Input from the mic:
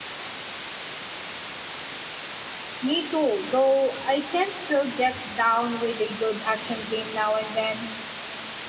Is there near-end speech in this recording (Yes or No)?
Yes